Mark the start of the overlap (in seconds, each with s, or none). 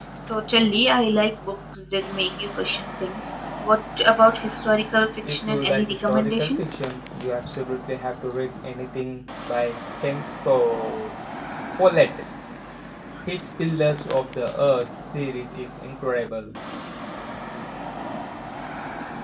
5.2 s